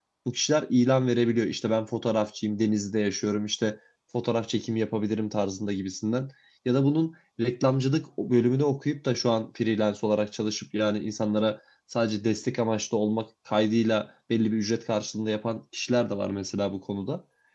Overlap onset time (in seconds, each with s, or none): none